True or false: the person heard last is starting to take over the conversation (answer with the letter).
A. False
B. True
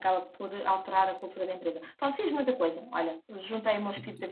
B